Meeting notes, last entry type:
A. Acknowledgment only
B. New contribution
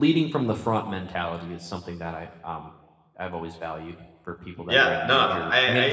B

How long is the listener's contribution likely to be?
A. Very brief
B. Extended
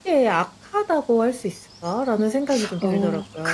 B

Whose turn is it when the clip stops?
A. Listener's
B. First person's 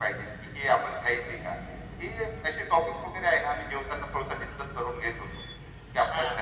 A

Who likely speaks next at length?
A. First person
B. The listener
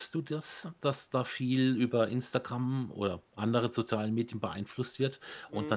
A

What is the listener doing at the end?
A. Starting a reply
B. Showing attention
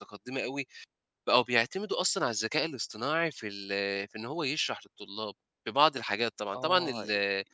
A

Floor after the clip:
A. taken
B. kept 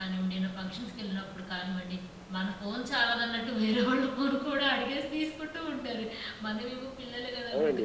B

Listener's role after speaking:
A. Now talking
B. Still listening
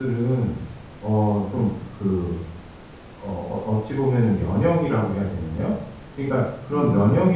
B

